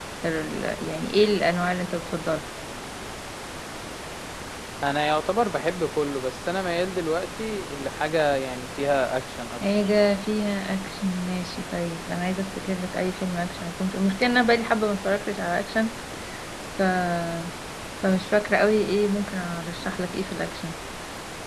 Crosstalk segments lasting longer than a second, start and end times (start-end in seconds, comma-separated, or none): none